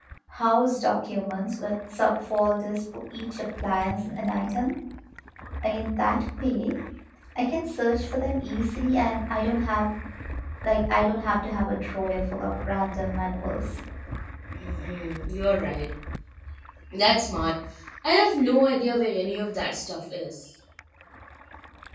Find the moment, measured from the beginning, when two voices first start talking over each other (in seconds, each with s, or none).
none